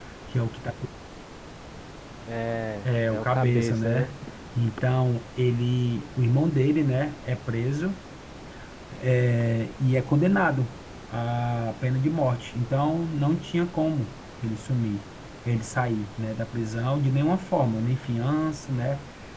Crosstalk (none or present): present